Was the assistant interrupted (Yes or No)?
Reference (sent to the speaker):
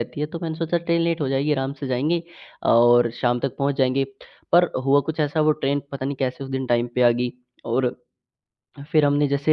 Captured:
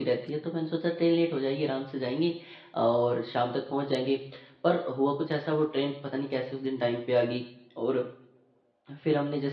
No